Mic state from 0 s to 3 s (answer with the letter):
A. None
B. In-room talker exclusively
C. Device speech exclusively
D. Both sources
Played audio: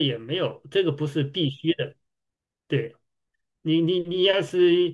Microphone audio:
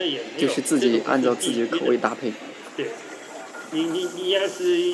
D